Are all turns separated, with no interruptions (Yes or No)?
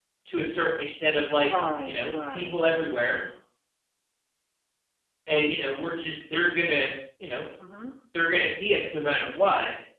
No